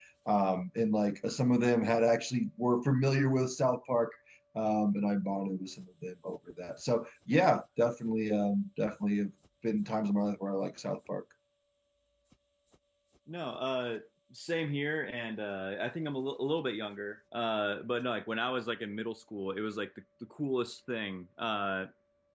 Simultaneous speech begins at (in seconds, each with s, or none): none